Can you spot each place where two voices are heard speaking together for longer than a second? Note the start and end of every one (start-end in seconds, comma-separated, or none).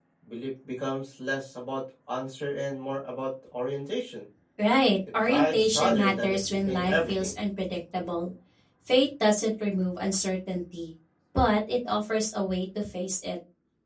5.2-7.4